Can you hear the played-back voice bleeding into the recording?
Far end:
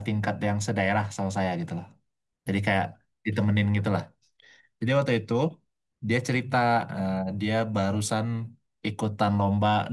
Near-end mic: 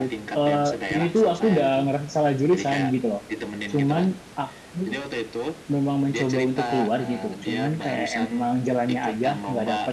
Yes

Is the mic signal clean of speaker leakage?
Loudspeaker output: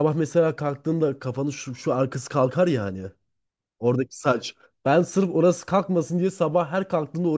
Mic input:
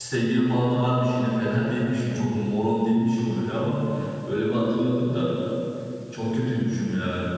Yes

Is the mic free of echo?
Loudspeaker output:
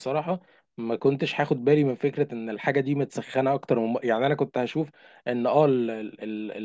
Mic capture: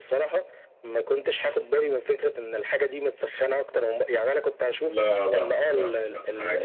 No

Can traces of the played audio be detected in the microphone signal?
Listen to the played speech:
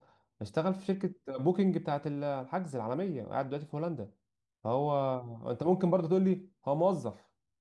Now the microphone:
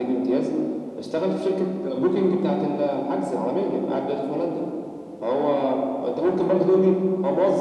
Yes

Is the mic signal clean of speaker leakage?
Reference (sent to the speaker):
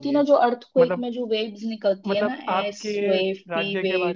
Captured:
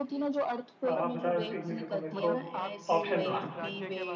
No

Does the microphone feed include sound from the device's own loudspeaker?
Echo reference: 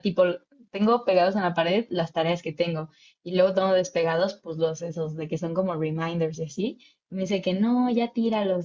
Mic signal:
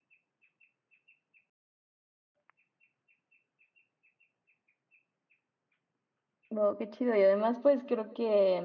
No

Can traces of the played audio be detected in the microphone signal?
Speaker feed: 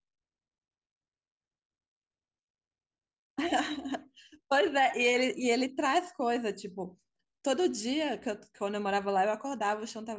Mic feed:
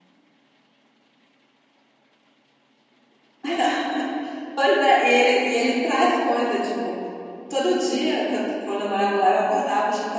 Yes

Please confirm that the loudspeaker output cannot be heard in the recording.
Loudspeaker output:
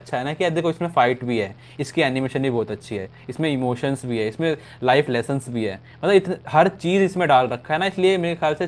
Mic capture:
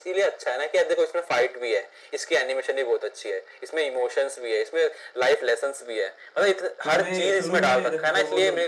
No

